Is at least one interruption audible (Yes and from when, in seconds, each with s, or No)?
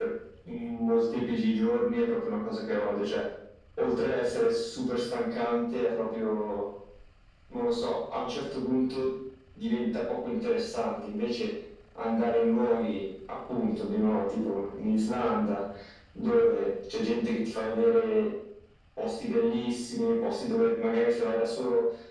No